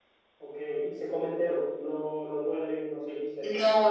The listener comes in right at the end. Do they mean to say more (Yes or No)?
Yes